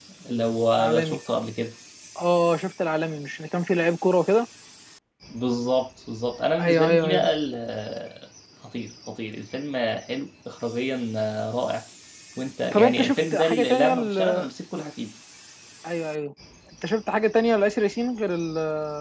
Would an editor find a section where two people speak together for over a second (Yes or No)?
Yes